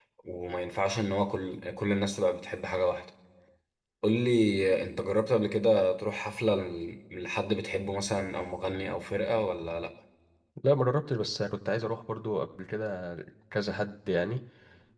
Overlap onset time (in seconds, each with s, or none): none